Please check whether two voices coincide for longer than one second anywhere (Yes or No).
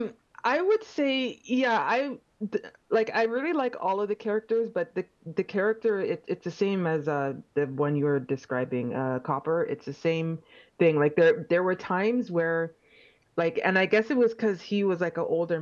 No